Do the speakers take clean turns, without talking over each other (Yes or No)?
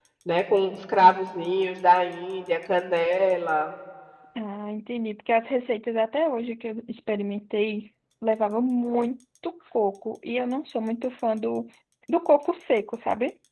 Yes